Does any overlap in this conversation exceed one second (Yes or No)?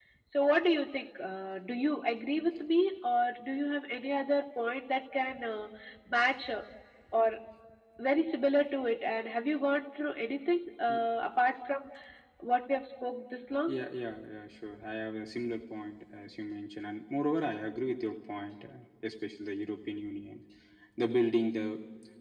No